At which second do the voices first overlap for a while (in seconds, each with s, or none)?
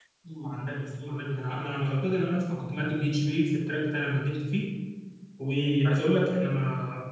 none